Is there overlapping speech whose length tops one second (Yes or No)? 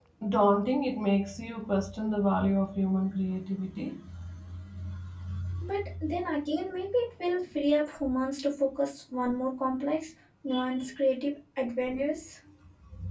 No